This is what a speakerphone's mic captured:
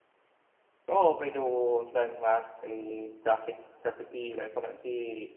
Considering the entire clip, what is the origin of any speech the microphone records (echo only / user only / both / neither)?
user only